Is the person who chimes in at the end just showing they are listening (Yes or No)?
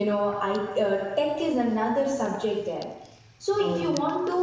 Yes